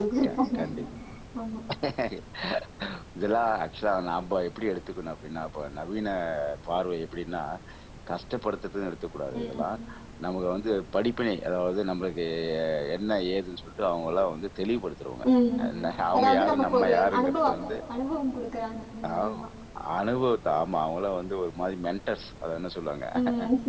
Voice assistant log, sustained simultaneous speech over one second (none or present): present